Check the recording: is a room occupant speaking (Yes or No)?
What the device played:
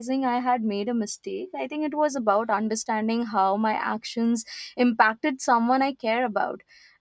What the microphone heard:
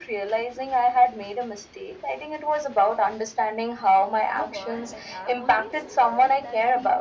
Yes